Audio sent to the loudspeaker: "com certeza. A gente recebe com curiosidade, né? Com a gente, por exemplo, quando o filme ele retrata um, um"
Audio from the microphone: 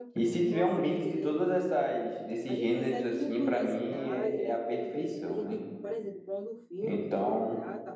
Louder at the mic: user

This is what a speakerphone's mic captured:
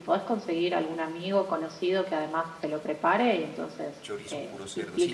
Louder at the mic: echo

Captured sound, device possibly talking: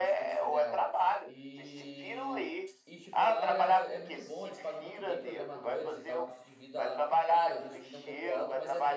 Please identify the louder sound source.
echo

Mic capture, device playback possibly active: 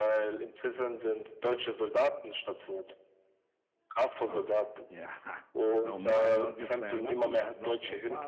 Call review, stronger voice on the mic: echo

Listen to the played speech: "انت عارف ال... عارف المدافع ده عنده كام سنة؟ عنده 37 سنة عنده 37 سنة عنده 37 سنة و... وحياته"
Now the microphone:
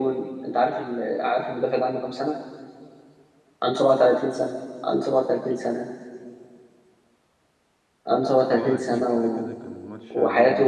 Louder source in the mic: echo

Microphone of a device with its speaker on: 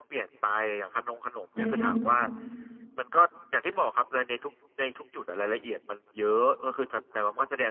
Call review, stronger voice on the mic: user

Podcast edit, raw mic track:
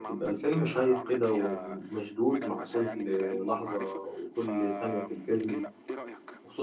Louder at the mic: user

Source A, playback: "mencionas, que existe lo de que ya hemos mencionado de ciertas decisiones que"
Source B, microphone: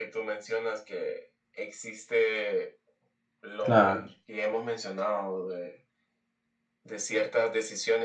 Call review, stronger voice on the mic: user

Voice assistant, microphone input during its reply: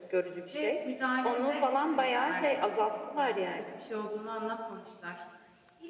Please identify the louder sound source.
echo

